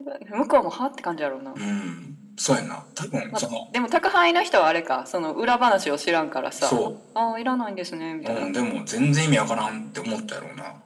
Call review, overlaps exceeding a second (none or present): none